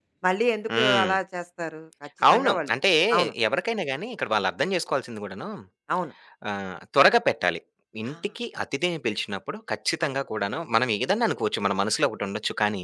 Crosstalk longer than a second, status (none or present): none